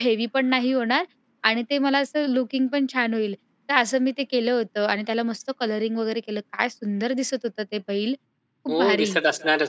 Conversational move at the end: taking over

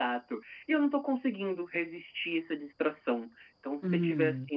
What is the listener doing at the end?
listening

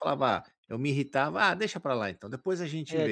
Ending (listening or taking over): taking over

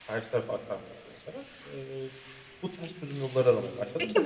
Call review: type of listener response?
taking over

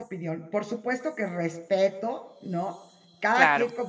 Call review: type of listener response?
listening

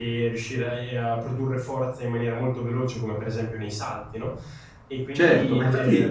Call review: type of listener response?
taking over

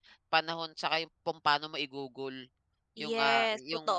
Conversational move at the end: taking over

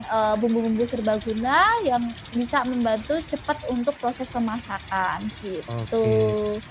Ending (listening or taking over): taking over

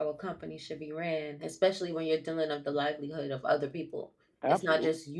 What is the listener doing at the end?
listening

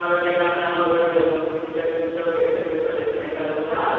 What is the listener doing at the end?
taking over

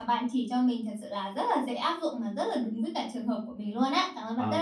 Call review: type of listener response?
taking over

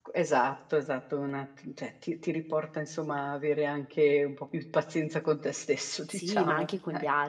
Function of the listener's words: taking over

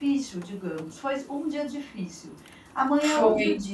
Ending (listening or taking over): listening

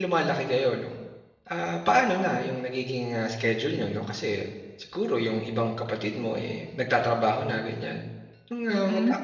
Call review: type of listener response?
listening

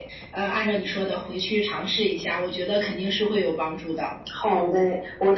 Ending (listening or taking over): taking over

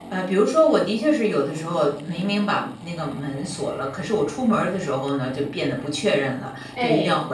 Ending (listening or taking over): listening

